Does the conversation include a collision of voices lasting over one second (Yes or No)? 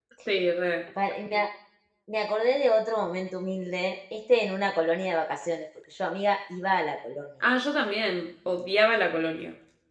No